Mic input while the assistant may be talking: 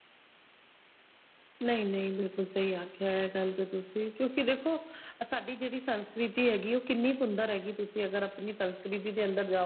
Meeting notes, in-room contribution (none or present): present